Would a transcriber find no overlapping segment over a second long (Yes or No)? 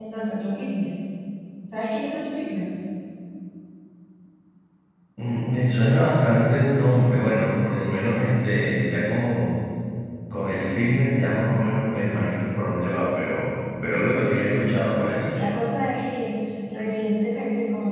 Yes